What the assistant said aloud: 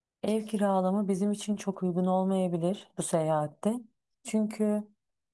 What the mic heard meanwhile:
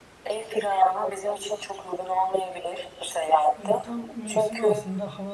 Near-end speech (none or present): present